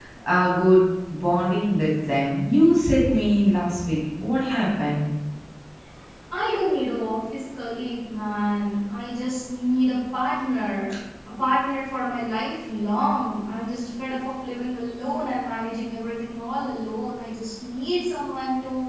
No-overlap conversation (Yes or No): Yes